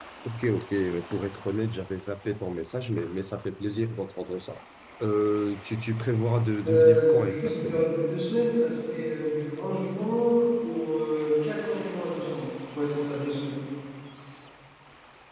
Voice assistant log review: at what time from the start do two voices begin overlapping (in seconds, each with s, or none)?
6.6 s